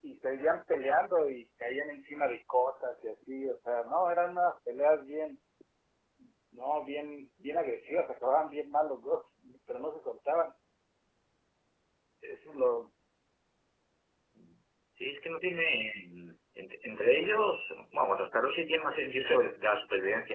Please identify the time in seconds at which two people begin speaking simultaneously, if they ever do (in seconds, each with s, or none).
none